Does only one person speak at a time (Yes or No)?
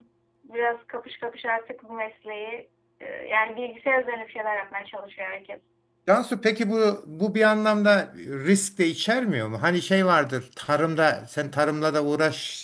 Yes